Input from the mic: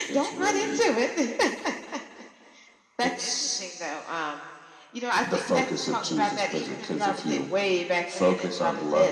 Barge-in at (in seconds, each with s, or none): none